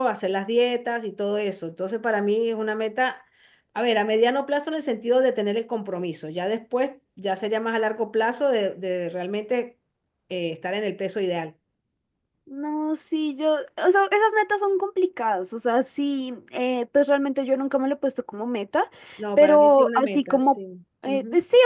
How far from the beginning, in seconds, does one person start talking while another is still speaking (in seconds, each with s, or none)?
19.4 s